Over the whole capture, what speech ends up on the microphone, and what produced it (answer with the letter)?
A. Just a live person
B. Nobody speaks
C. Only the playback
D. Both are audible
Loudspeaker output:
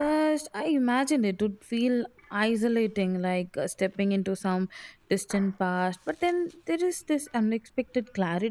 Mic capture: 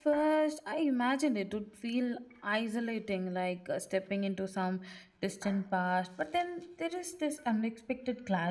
C